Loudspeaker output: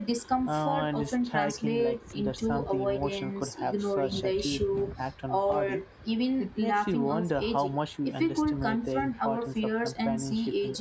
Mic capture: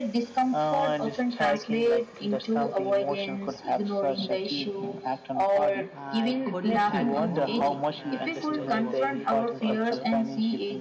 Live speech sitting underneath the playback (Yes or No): Yes